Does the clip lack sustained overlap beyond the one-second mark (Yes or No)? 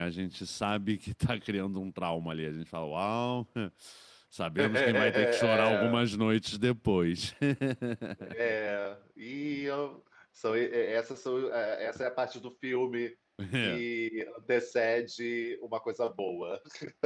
No